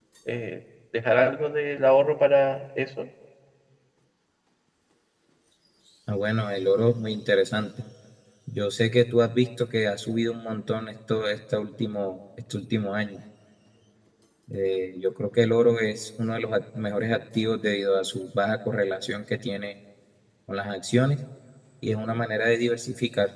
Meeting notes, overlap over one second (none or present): none